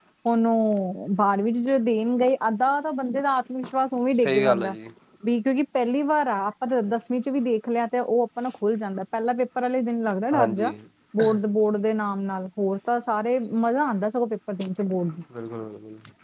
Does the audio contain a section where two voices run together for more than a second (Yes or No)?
No